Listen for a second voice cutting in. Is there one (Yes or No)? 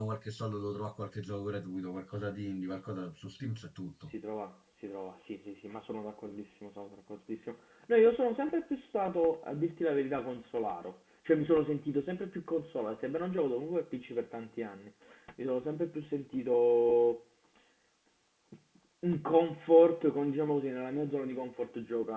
No